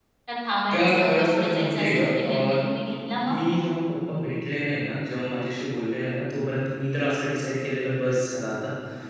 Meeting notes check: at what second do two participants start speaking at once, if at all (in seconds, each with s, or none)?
0.7 s